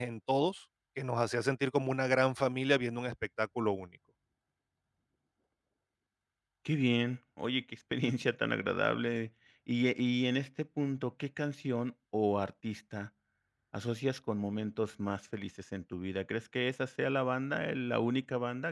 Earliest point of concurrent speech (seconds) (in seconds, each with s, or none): none